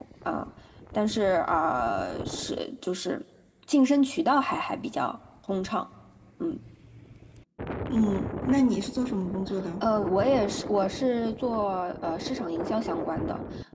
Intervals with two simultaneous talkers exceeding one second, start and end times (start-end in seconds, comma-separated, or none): none